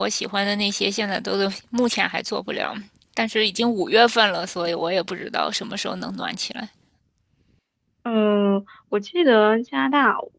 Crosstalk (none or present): none